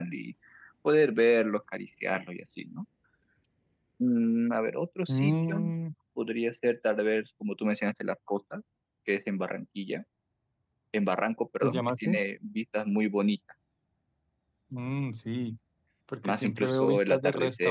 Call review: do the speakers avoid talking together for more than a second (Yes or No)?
No